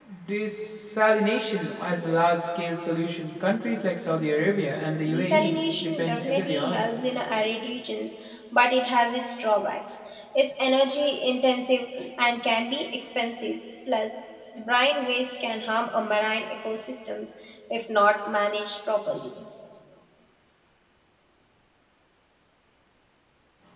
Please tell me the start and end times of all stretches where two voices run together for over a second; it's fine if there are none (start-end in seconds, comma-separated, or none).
5.1-6.8